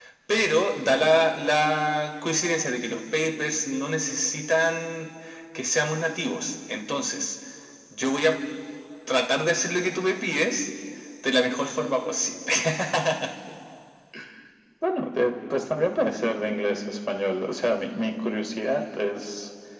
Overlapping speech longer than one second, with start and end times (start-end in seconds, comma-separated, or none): none